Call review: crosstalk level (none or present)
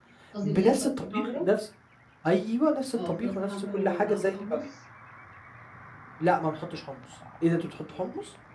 present